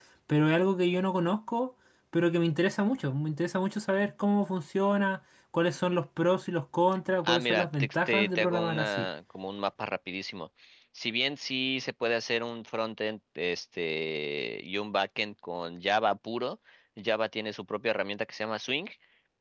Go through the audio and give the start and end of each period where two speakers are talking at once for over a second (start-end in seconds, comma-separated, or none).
7.2-9.1